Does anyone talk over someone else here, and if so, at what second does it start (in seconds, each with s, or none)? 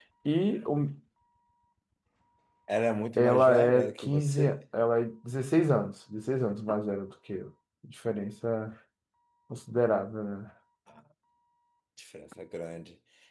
3.2 s